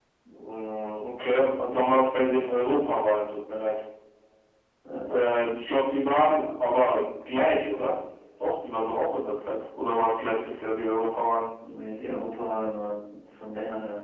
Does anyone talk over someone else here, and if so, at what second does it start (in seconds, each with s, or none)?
none